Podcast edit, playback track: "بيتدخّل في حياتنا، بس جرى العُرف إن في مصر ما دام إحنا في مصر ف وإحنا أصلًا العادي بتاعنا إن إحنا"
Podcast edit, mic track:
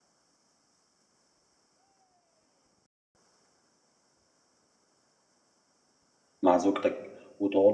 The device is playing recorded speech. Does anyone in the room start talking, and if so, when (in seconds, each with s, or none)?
6.4 s